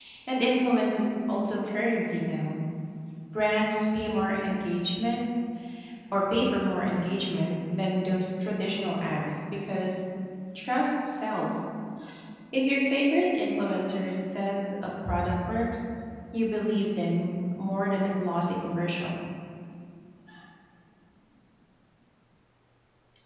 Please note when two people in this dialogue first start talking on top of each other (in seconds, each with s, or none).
none